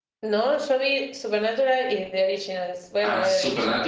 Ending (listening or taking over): taking over